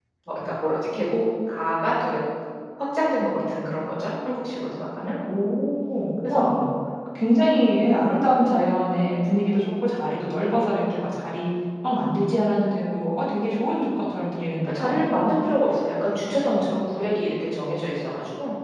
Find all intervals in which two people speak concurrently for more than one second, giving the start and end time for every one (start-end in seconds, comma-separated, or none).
none